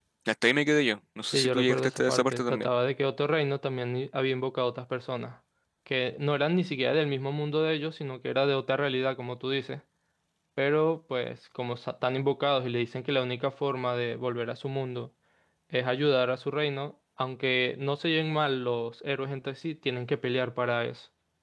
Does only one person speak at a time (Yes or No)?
No